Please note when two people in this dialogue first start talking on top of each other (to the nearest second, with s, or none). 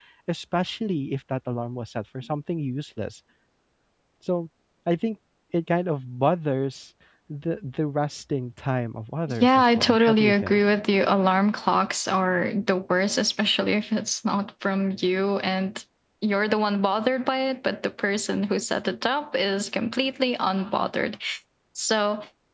9 s